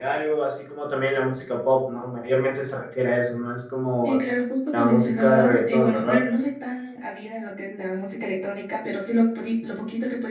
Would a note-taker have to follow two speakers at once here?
Yes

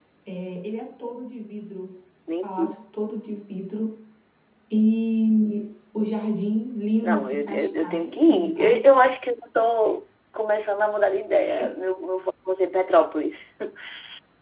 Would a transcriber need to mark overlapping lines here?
Yes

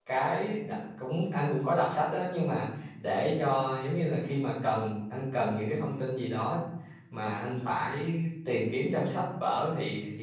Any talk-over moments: No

